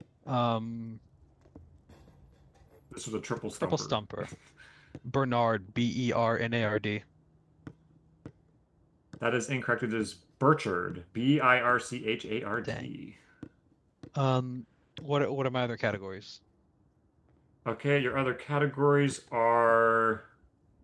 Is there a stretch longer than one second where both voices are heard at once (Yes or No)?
No